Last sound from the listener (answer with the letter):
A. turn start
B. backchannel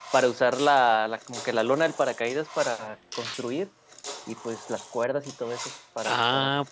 A